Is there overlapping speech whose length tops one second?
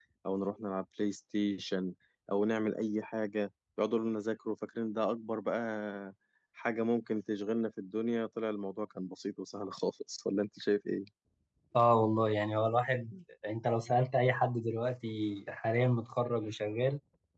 No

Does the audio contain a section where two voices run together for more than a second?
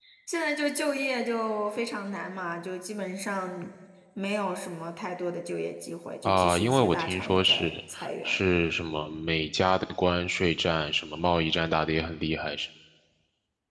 Yes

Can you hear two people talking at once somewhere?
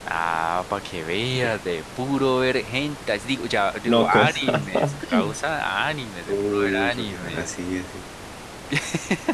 Yes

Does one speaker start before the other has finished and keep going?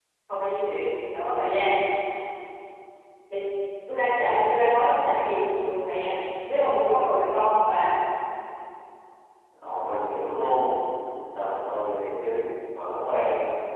No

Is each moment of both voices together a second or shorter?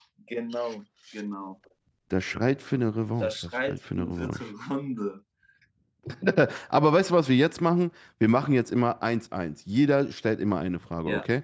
No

